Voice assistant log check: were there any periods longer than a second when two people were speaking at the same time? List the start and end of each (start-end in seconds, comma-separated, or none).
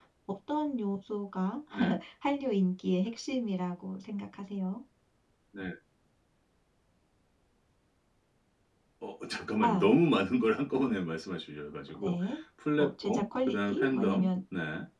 12.8-14.3